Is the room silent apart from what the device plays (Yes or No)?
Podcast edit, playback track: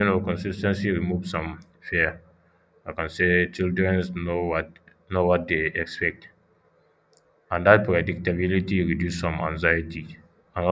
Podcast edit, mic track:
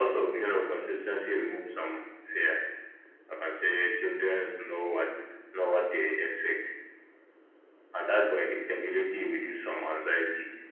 Yes